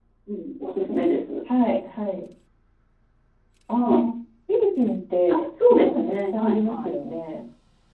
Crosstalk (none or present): present